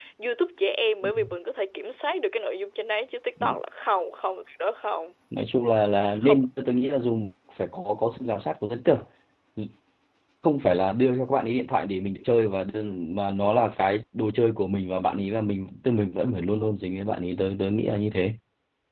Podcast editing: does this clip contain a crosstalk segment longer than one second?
No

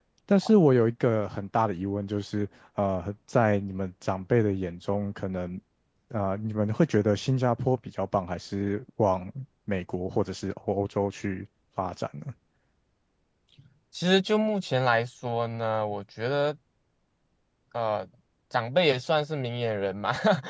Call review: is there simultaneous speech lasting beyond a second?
No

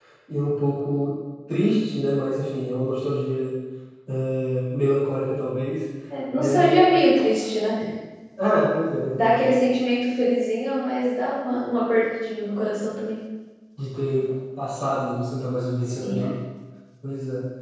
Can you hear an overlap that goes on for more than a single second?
No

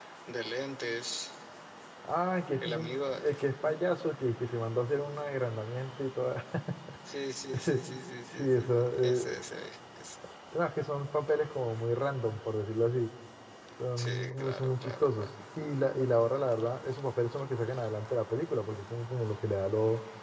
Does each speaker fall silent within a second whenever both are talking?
No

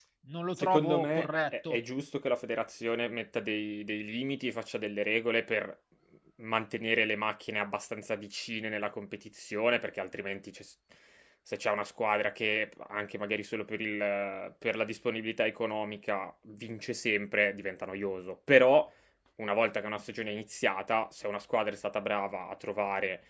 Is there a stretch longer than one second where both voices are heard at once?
Yes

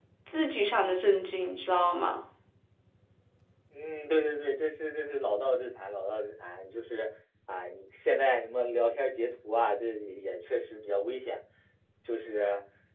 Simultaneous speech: No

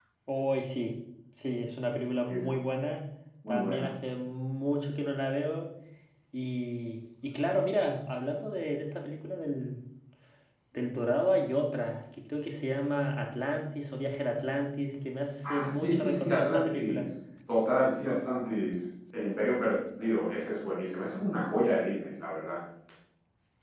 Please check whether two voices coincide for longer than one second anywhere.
Yes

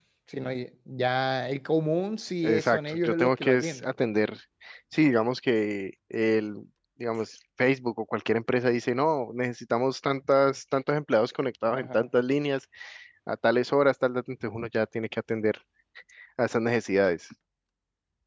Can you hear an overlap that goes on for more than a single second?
Yes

